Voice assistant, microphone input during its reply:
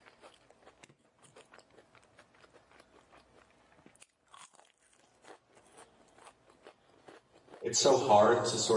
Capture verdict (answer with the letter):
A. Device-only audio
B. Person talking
B